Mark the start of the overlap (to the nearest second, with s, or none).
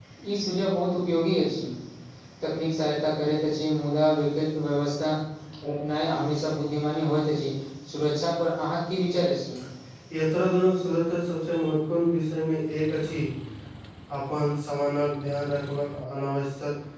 none